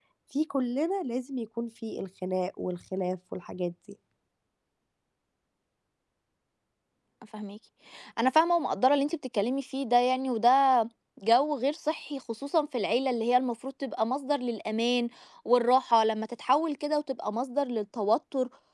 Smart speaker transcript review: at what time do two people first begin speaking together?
none

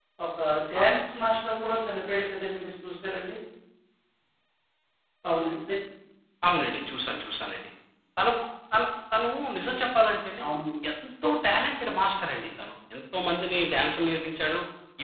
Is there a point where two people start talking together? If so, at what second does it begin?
none

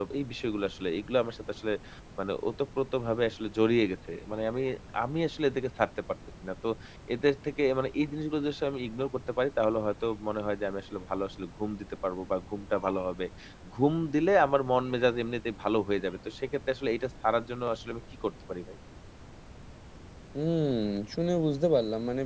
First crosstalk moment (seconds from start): none

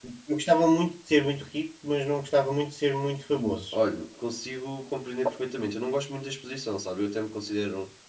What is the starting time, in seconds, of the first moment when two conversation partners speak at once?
none

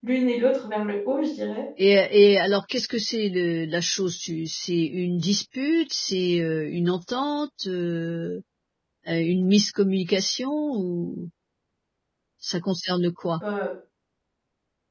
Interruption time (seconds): none

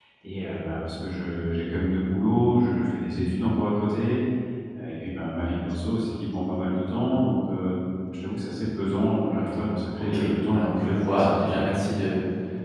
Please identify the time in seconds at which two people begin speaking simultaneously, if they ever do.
10 s

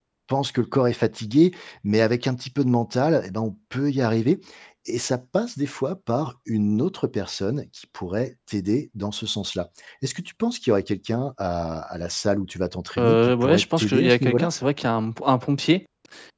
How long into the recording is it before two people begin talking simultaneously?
13 s

